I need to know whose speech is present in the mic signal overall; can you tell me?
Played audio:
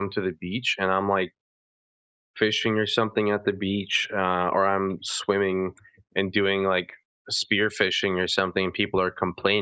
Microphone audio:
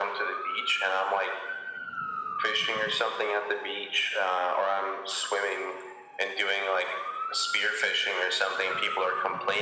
echo only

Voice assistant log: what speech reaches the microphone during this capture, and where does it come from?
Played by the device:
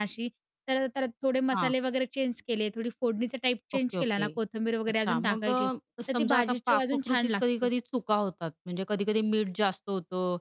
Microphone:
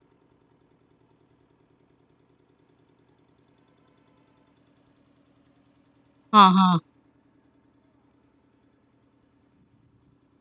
user only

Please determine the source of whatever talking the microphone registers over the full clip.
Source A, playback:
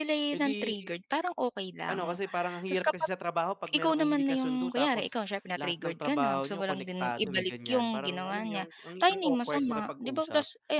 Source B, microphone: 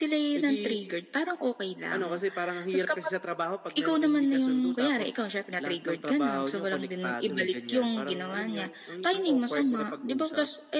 echo only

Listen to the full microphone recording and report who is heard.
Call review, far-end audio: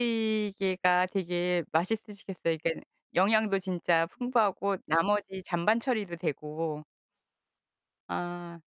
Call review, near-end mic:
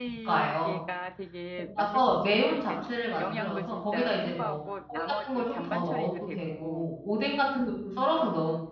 both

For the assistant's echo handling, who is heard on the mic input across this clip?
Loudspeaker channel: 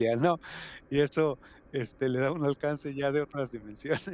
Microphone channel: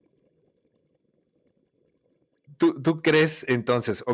user only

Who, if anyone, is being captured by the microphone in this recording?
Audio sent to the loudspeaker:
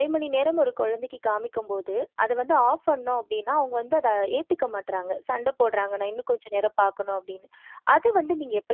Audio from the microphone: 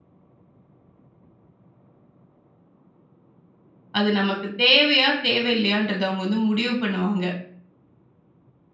user only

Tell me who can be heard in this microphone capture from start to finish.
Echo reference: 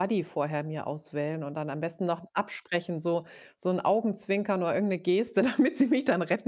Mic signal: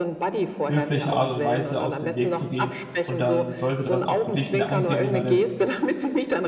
both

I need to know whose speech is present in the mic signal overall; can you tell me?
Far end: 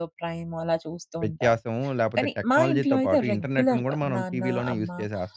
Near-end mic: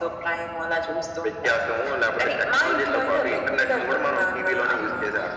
echo only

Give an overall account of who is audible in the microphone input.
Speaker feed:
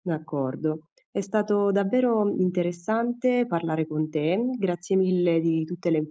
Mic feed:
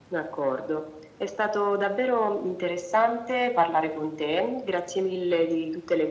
echo only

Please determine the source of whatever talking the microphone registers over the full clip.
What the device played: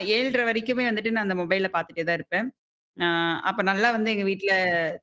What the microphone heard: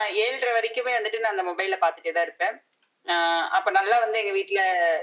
echo only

